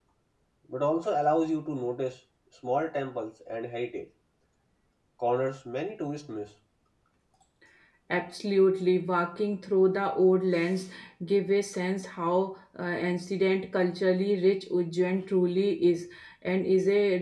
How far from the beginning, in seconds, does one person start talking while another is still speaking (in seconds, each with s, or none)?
none